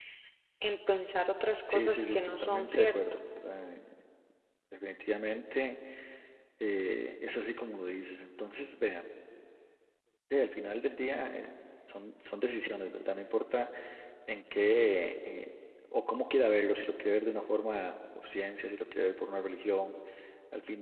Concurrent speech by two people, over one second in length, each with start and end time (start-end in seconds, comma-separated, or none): 1.7-3.0